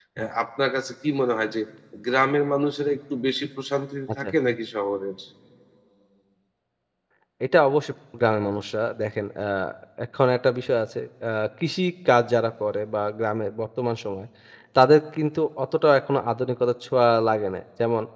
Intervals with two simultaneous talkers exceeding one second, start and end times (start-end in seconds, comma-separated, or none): none